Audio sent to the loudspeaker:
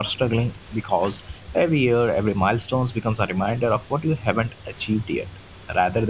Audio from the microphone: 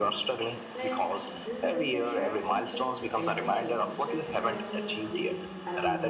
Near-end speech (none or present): present